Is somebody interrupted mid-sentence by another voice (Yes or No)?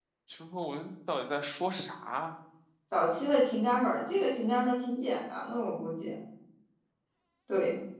No